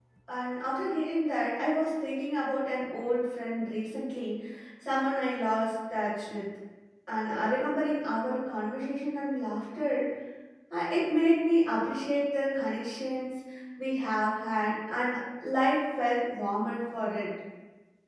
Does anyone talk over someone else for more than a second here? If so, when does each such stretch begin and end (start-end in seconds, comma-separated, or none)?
none